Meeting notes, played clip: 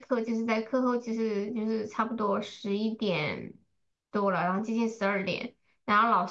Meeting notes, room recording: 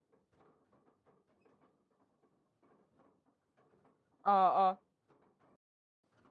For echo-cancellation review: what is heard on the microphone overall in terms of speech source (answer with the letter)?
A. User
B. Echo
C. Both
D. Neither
A